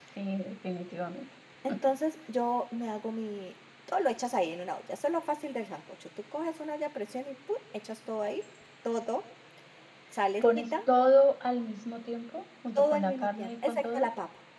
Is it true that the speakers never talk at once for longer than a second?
No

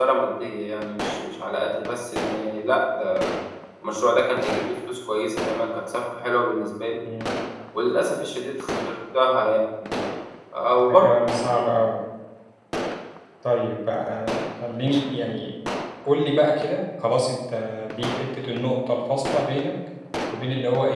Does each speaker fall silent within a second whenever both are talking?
Yes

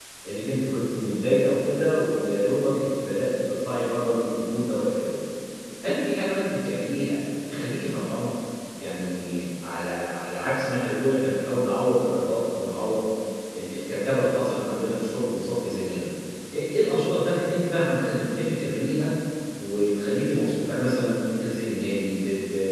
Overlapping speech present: No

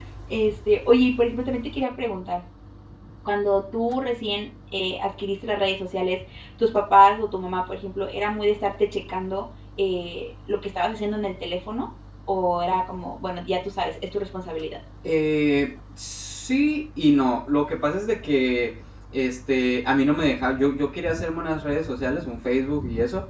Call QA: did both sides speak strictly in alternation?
Yes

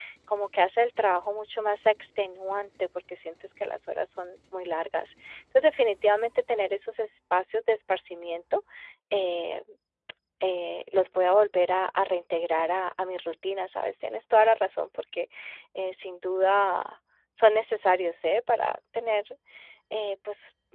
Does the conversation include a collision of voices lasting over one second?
No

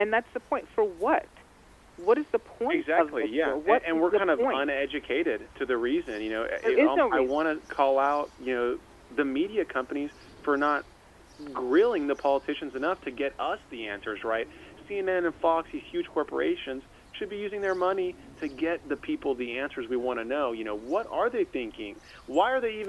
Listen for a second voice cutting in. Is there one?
Yes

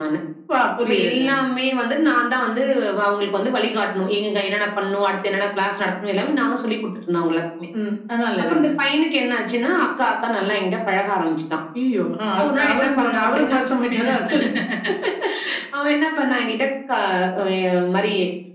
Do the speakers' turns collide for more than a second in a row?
Yes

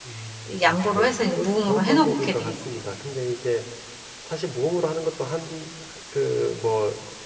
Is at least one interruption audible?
Yes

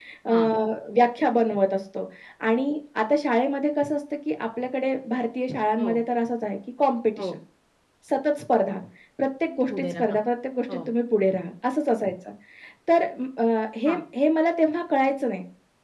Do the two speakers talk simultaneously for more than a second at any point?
No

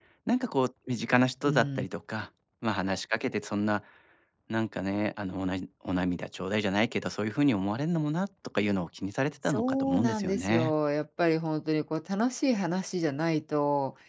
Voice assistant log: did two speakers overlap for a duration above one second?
Yes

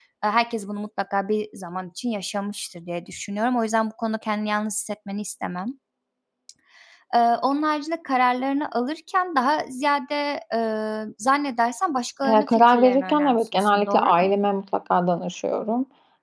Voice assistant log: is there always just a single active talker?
No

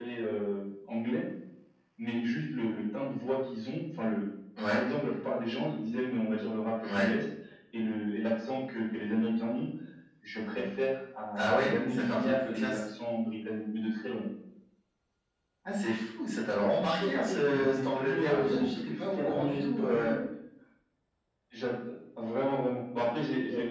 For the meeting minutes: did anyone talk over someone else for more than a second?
Yes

